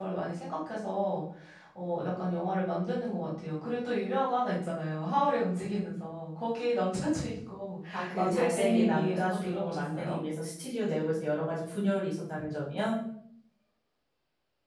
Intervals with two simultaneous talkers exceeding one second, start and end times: 7.9-10.2

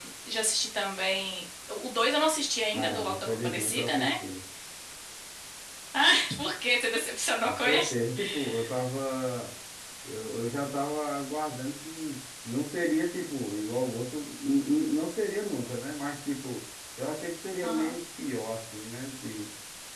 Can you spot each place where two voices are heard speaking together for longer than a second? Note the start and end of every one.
2.7-4.1

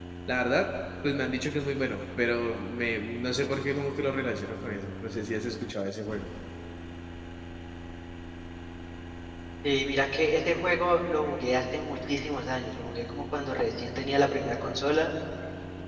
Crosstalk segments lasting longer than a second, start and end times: none

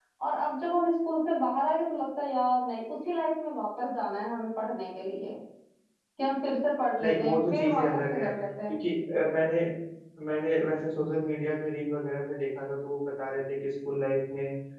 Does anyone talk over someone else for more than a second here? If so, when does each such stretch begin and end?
7.0-8.3

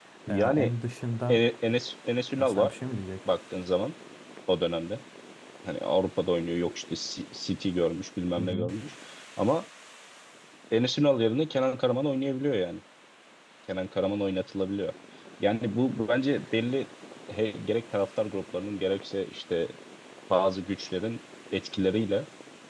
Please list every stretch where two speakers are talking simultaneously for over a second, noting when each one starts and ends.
none

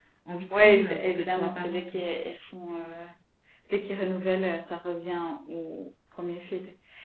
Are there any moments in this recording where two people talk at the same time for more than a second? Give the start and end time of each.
0.5-2.0

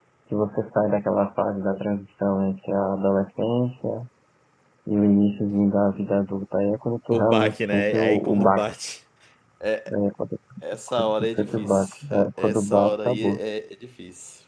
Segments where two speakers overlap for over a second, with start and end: 7.1-8.6, 11.0-13.4

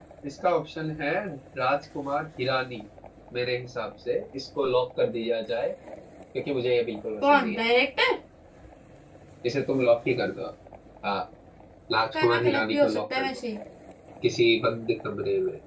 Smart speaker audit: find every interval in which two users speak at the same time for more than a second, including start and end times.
12.1-13.4

